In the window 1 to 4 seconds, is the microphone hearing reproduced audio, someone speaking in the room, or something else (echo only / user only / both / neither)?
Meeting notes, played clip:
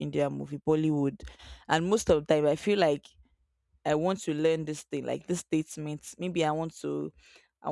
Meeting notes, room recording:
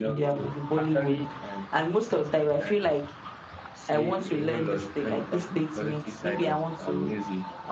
both